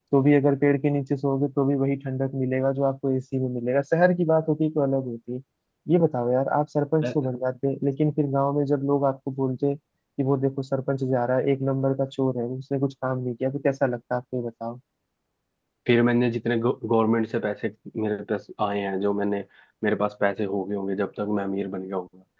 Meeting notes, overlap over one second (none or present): none